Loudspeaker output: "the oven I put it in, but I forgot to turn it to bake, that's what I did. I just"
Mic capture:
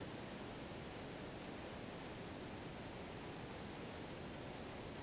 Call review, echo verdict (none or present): none